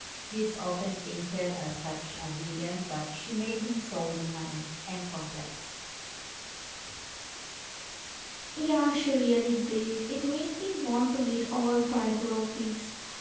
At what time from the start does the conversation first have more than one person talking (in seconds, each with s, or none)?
none